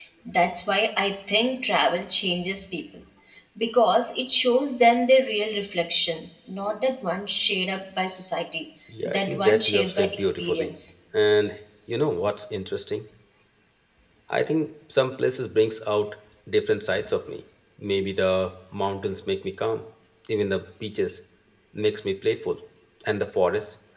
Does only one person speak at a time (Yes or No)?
No